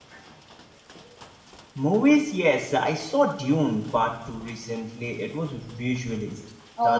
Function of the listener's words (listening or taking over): taking over